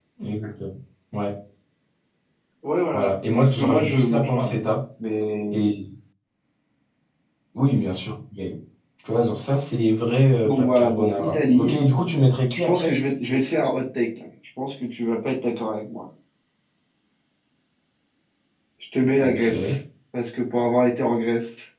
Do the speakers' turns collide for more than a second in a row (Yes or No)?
Yes